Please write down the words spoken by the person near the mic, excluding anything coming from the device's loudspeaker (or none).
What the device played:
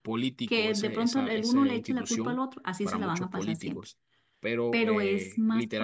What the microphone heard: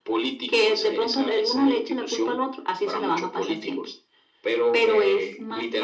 none